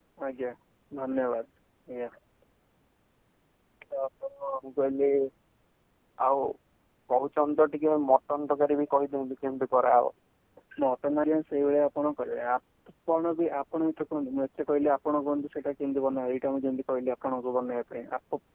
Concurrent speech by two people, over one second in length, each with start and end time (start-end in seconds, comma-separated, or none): none